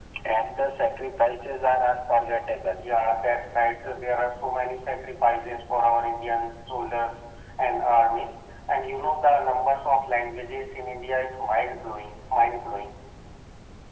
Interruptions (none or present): none